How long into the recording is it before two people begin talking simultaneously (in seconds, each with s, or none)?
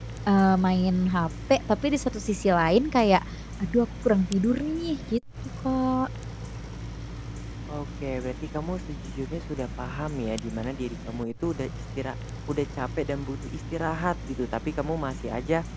none